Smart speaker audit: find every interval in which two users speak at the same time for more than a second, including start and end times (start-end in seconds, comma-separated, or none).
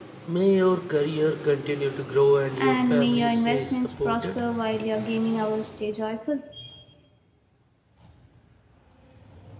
2.6-4.4